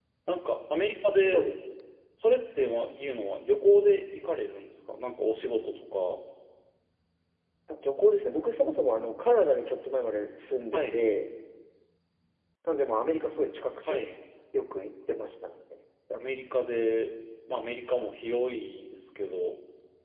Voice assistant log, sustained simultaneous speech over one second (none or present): none